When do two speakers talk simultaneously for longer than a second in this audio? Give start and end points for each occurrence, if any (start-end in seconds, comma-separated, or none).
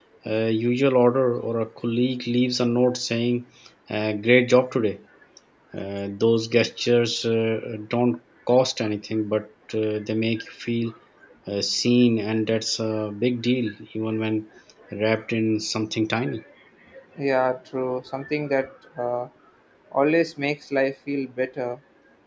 none